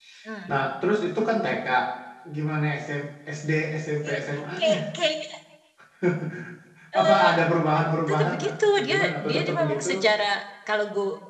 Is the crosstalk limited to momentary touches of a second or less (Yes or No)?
No